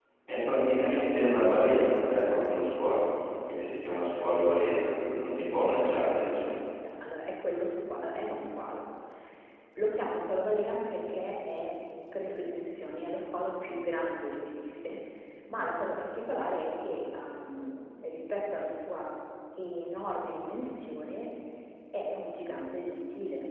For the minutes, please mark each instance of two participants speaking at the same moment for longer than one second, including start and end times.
none

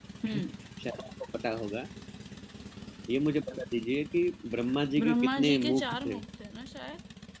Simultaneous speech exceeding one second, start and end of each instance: 5.0-6.2

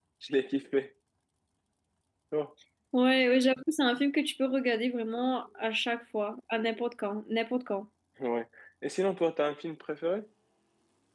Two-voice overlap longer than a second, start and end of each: none

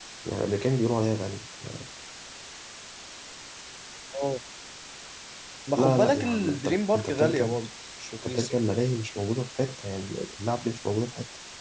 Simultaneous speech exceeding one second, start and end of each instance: 5.8-7.6

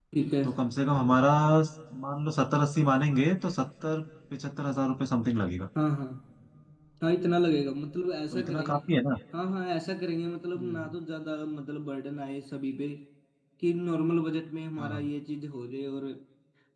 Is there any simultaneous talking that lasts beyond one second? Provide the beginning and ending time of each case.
none

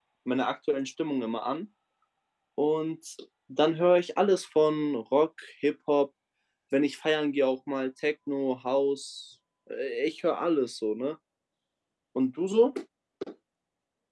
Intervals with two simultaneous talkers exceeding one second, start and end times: none

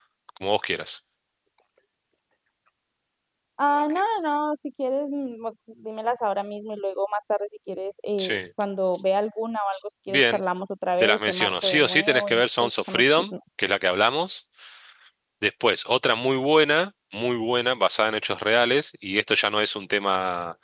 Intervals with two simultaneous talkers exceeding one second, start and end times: 11.0-13.3

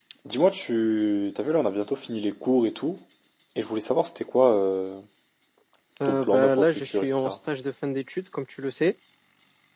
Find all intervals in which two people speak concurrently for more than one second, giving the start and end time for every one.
6.0-7.4

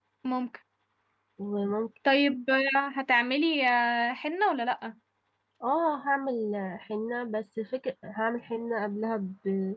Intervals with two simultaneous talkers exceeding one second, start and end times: none

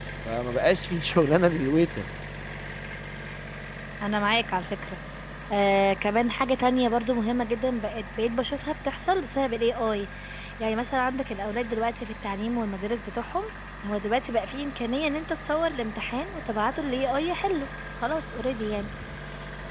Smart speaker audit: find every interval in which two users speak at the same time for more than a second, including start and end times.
none

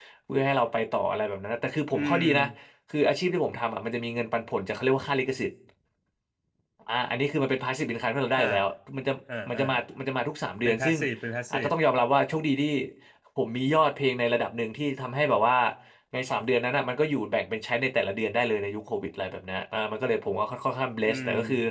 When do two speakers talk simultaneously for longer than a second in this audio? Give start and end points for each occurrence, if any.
none

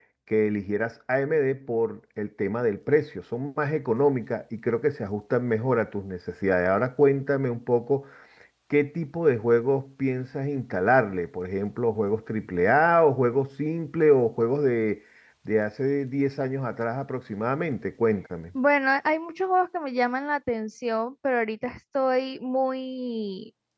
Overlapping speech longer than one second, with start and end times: none

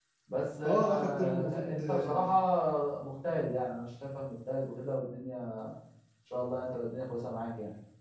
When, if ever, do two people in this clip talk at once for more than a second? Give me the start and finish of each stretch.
0.6-2.3

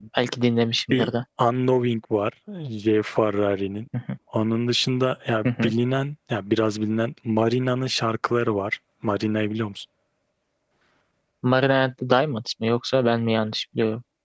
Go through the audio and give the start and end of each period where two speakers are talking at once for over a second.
none

